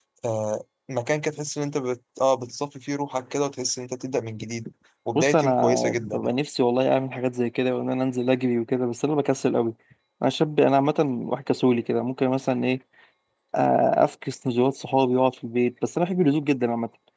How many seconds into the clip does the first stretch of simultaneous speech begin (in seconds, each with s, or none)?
5.2 s